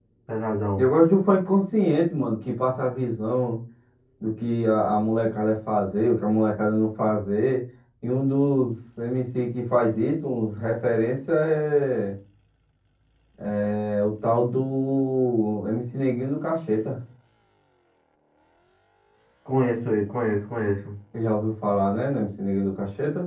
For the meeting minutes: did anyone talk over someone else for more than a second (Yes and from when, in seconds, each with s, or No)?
No